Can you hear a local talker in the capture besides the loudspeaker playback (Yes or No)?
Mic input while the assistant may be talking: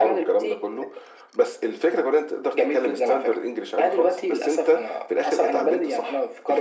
No